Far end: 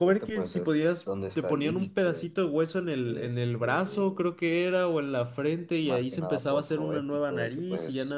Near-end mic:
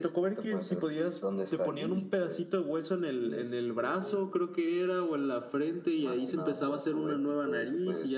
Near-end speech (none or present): none